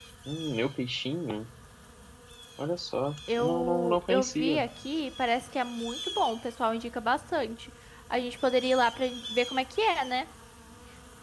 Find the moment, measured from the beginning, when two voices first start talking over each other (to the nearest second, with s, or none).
3 s